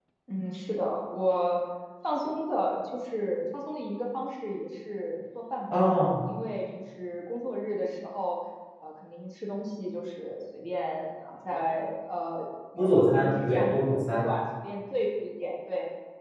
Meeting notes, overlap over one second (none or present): present